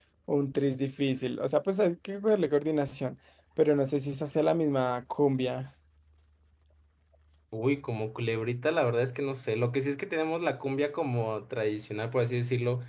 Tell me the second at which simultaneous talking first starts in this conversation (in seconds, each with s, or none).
none